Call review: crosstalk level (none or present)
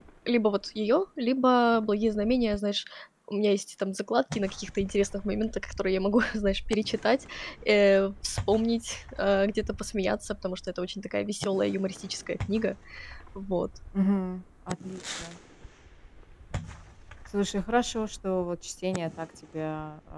none